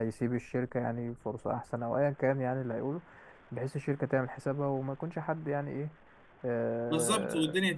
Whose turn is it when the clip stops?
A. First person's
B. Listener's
B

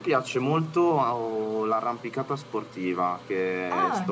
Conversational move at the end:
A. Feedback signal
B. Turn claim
A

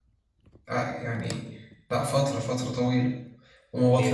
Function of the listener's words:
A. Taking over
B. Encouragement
B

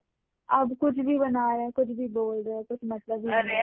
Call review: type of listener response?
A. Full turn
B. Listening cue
A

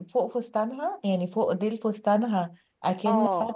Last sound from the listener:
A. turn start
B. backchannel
B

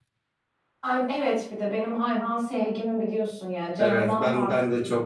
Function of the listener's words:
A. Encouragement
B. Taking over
B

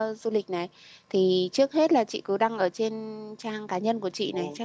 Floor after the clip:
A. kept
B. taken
A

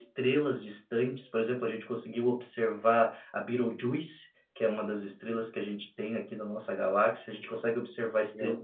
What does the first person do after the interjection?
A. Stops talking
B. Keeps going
B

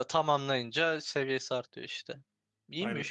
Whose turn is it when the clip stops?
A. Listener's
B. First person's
A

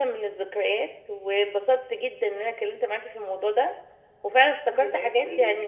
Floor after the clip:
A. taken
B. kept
B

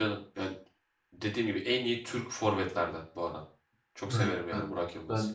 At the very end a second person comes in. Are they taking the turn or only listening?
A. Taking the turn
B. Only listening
A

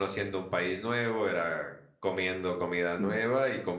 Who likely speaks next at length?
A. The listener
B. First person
B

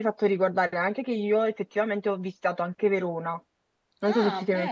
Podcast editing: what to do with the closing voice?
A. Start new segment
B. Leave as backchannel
A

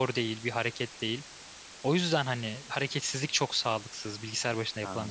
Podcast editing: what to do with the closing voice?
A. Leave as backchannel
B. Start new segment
B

